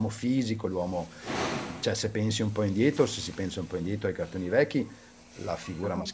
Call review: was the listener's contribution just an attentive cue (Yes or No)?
Yes